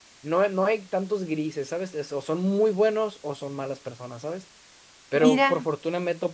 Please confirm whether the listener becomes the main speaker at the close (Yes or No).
No